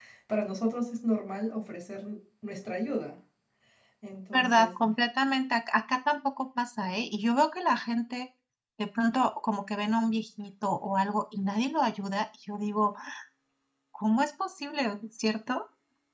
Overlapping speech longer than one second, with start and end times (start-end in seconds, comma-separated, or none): none